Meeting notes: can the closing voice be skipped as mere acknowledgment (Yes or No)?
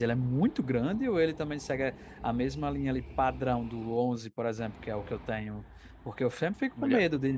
Yes